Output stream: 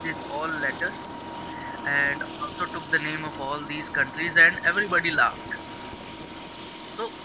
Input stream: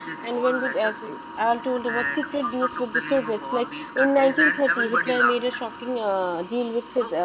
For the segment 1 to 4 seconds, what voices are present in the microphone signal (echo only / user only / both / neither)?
both